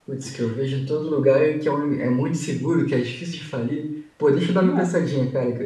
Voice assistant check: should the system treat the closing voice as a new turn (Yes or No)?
No